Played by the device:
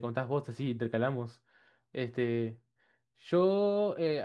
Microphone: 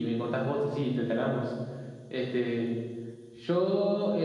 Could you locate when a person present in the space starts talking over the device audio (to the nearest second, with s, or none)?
none